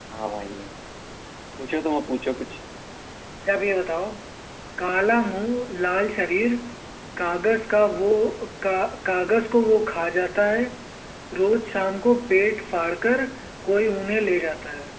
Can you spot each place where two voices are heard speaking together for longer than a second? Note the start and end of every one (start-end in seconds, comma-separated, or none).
none